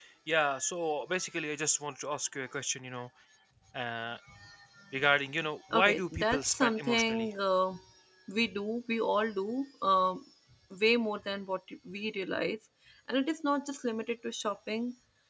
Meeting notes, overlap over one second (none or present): present